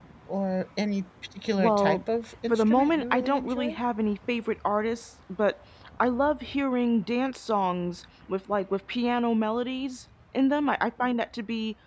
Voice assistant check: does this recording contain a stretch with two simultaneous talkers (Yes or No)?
Yes